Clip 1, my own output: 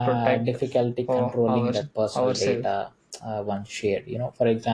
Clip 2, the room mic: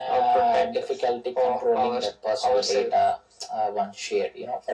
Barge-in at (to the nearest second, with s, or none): none